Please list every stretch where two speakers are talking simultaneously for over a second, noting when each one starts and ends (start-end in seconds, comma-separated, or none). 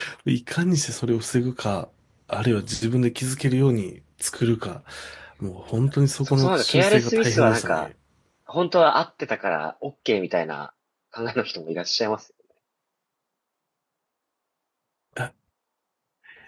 6.2-7.9